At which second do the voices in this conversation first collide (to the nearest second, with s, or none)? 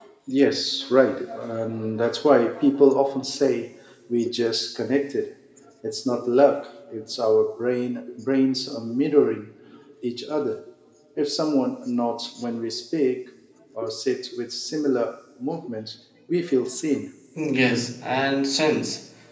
none